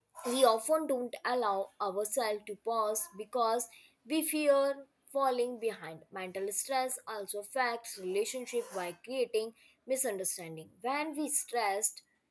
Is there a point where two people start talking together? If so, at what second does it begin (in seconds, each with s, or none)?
none